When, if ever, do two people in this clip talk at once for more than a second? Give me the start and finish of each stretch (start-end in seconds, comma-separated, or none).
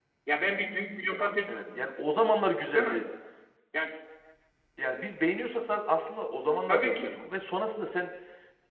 none